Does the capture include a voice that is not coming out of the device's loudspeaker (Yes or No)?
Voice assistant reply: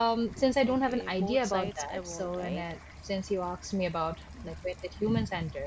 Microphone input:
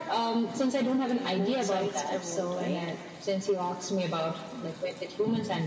No